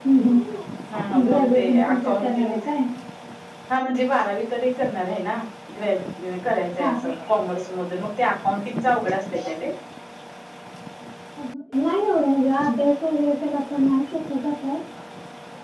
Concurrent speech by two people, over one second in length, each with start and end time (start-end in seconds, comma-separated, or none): 1.1-2.5